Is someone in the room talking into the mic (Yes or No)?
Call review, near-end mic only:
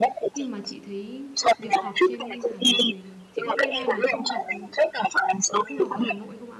Yes